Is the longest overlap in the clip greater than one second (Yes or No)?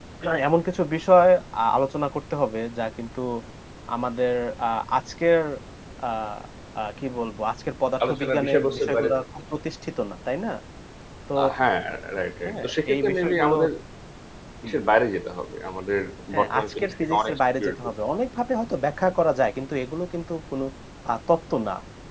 Yes